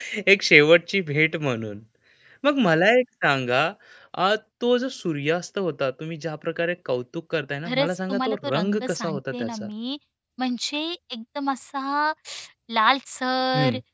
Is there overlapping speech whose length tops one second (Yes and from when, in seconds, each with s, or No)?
Yes, from 7.6 s